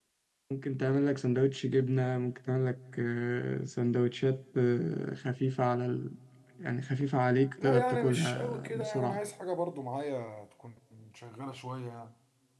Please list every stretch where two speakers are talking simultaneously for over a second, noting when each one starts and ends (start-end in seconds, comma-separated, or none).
7.6-9.2